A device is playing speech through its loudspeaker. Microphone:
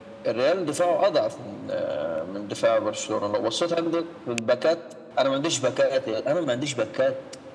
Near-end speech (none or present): none